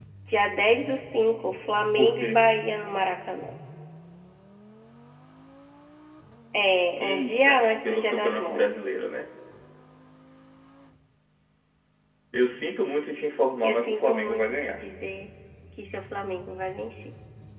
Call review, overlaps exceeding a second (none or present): present